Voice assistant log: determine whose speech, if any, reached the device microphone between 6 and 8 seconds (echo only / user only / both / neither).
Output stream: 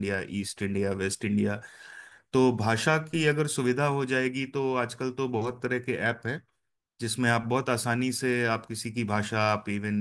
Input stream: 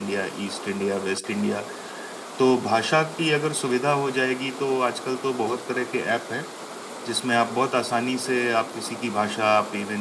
echo only